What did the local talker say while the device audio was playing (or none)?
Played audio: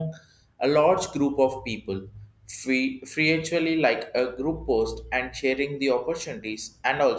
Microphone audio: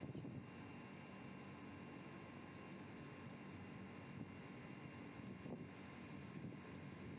none